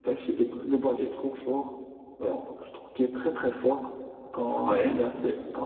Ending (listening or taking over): listening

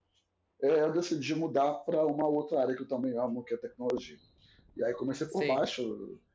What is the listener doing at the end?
listening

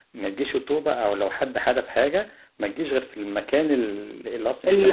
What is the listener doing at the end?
listening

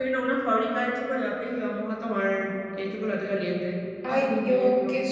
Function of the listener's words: taking over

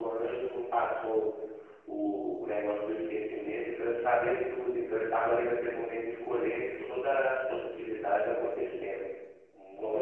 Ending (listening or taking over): taking over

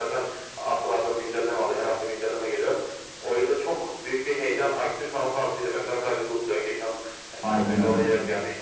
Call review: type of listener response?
listening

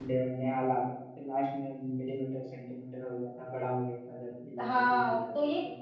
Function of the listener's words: taking over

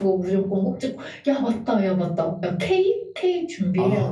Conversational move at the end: taking over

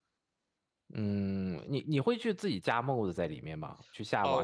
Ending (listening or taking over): taking over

